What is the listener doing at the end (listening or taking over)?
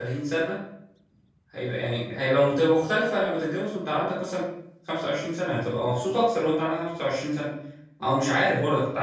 listening